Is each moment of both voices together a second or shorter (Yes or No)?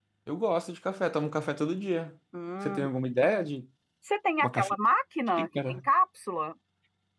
Yes